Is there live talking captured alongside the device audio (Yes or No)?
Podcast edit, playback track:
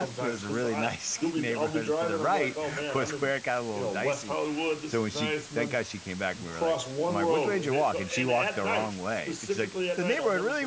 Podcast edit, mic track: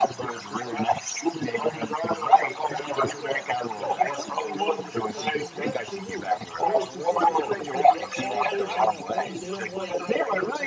Yes